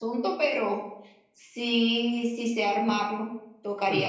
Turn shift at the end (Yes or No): No